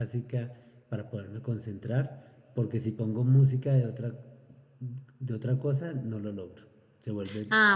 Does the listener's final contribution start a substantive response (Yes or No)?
Yes